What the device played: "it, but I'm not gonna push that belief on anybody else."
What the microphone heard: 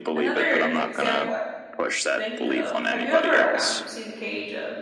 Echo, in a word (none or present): present